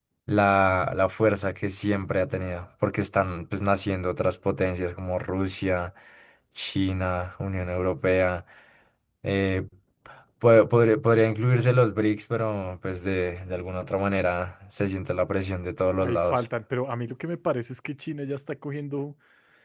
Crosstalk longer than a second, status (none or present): none